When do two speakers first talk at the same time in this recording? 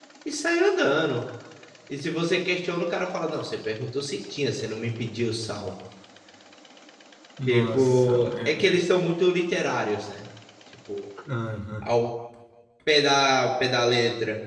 7.5 s

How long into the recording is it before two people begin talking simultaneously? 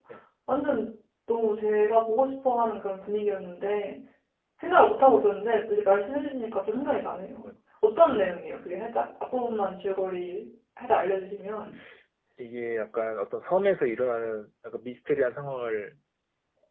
none

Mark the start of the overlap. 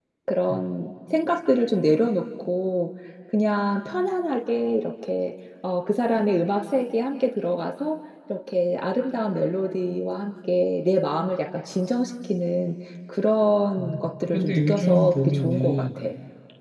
13.8 s

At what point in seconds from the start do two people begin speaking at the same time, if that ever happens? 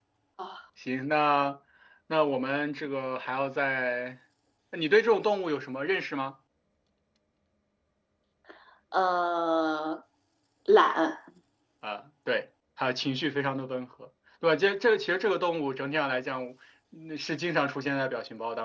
none

